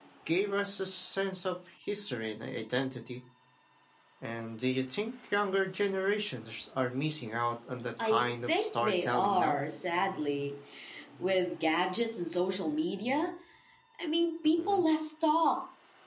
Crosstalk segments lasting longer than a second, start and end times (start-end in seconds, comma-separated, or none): 8.0-9.6